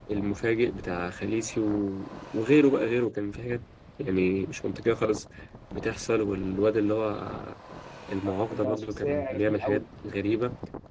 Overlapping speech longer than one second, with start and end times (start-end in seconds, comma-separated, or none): 8.3-9.8